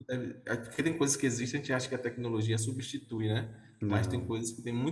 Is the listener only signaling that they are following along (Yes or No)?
Yes